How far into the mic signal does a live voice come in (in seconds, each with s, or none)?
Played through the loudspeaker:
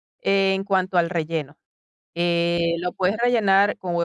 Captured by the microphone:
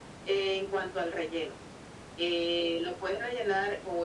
none